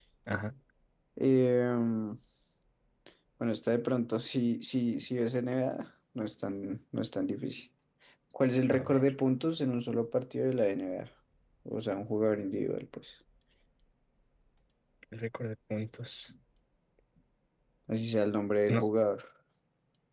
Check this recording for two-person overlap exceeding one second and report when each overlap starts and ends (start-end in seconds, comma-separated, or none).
none